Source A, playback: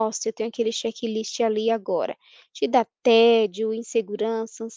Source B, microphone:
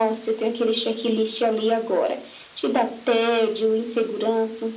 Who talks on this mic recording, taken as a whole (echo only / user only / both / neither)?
echo only